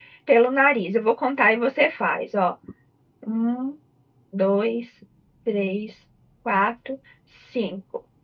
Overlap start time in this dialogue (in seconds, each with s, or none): none